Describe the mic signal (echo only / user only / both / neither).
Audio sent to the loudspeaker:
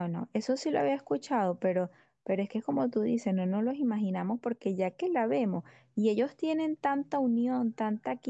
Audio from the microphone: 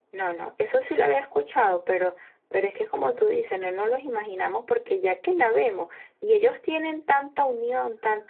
echo only